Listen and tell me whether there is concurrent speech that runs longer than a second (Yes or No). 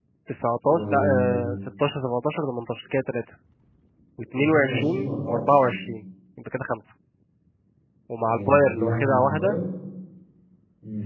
Yes